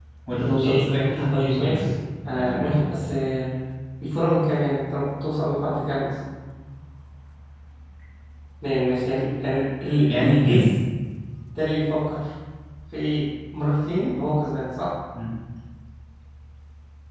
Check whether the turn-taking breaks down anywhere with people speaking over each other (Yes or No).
Yes